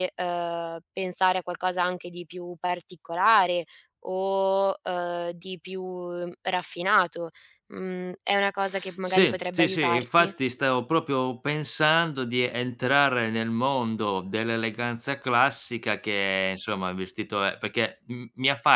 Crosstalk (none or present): present